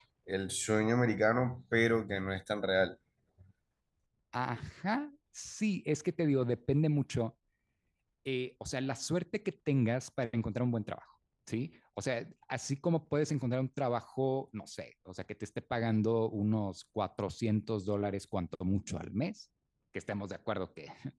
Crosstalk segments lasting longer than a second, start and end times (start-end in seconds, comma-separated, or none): none